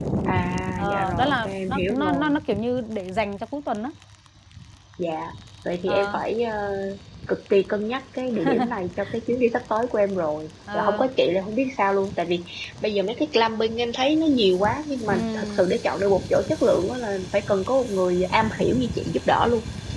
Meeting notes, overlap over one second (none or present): present